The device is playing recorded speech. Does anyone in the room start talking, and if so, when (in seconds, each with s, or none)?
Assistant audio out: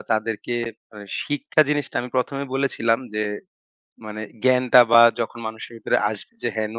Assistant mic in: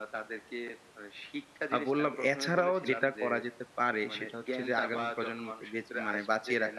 1.7 s